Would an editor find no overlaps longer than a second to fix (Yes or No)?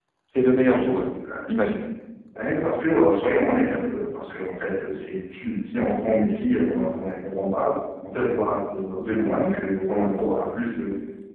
Yes